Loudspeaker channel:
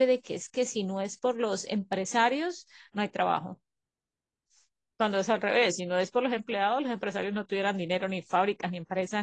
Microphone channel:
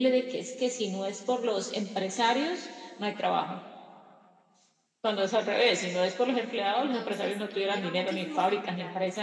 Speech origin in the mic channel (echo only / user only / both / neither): both